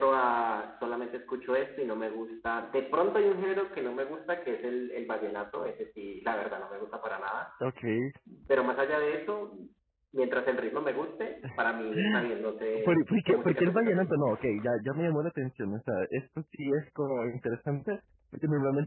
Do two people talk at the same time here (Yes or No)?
Yes